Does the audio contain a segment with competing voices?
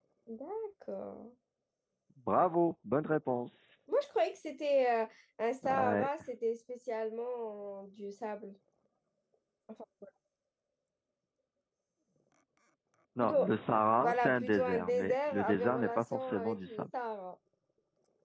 Yes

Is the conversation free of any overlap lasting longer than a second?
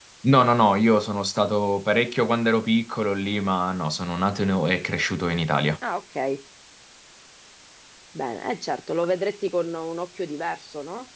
Yes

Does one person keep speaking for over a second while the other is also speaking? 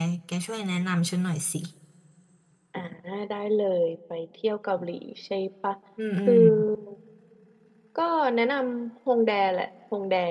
No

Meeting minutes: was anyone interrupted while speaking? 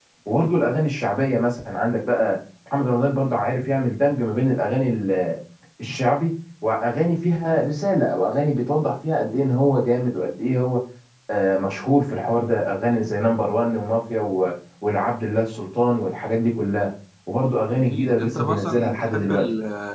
Yes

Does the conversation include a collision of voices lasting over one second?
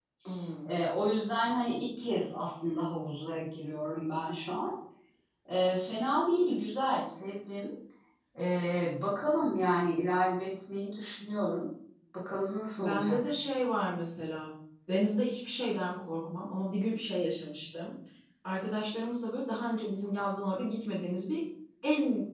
No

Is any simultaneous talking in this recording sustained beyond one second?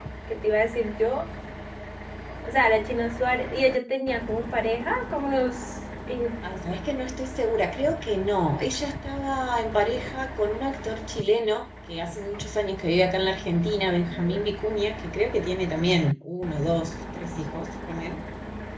No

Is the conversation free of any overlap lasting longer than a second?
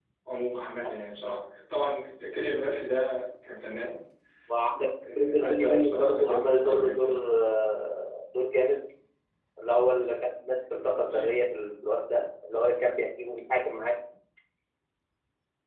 No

